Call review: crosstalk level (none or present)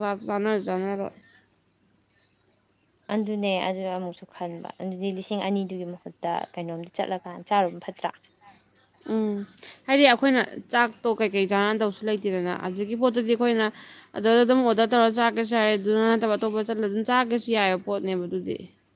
none